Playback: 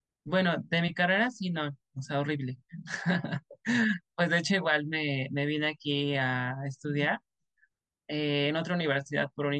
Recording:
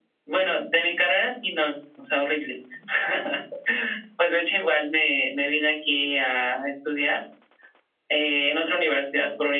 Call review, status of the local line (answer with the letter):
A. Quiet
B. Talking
A